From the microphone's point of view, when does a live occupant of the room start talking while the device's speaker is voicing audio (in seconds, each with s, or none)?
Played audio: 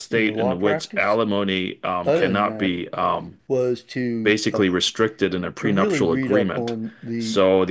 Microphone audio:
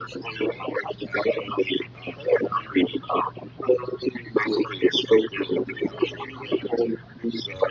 none